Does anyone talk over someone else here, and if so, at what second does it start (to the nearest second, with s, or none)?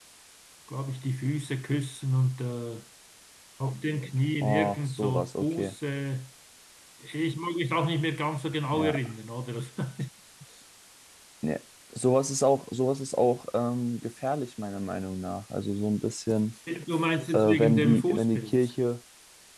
4 s